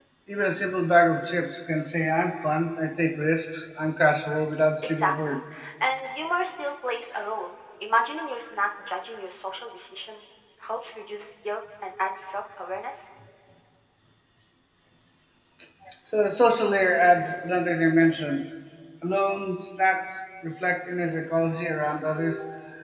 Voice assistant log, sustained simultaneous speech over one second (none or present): none